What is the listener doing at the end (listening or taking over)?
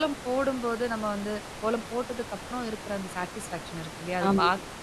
listening